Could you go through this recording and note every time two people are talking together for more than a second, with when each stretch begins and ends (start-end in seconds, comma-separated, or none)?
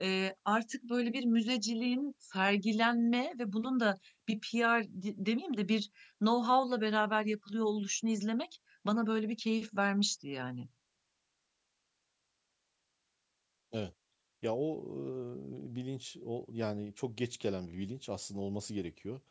none